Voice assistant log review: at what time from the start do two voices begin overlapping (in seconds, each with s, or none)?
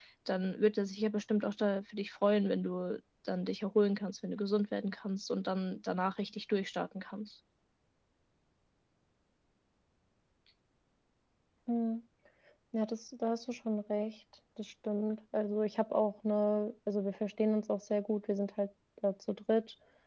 none